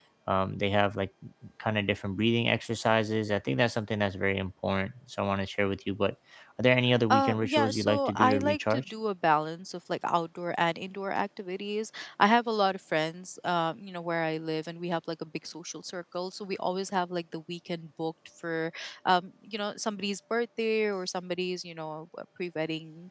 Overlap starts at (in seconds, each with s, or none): 7.1 s